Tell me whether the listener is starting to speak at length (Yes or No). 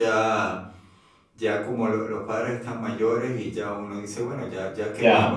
No